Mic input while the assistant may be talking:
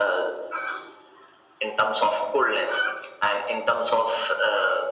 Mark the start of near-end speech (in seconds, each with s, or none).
none